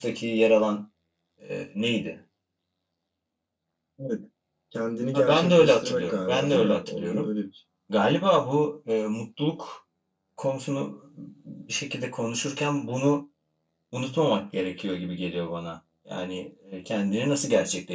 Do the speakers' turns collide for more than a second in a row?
Yes, from 5.1 s

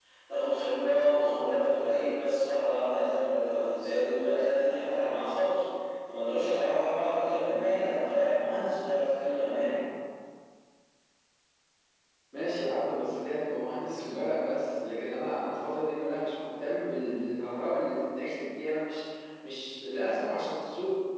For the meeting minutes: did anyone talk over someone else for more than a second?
No

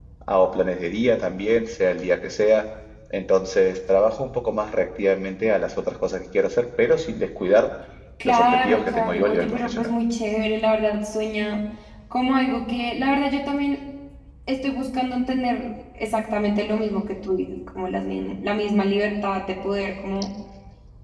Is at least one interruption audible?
Yes, from 8.2 s

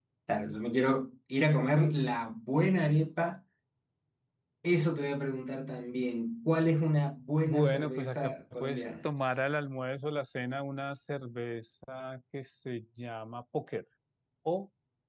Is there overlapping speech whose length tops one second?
Yes, from 7.5 s

